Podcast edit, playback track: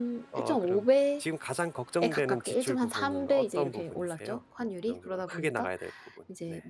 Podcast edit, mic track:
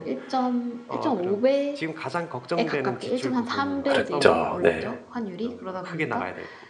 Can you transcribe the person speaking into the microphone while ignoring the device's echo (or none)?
그랬죠. 네.